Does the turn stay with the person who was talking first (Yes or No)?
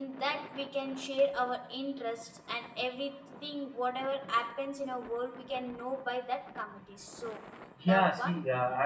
No